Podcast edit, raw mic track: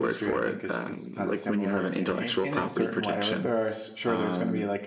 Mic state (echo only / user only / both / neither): both